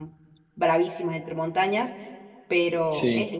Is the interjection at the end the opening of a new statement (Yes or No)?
No